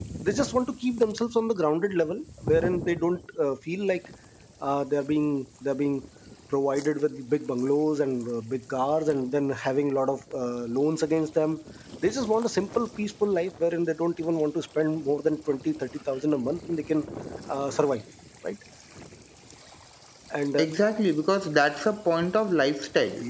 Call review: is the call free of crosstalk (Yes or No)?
Yes